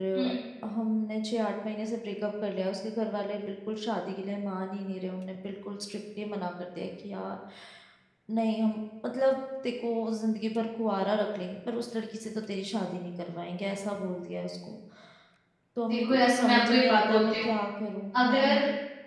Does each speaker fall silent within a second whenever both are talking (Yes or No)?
No